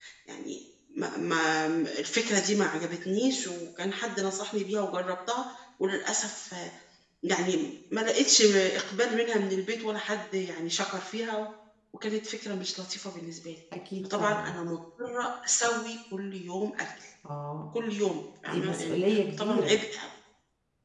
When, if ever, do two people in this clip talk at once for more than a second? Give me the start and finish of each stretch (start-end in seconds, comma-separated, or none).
18.5-19.8